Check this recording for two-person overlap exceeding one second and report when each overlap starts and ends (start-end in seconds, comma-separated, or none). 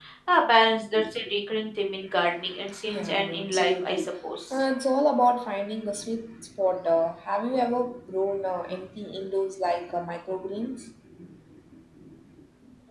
2.9-4.1